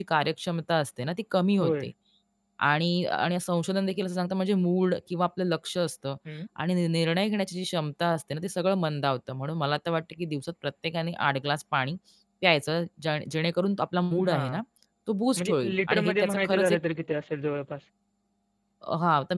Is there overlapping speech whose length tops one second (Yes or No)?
Yes